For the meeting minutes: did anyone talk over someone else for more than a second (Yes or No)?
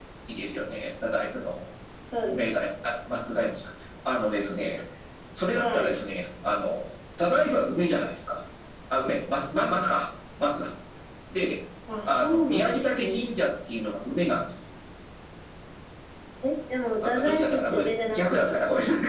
Yes